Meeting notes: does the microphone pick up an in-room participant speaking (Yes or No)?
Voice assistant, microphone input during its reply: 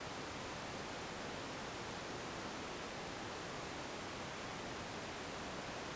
No